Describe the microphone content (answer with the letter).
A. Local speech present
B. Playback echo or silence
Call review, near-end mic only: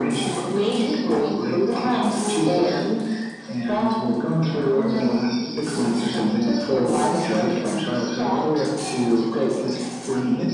A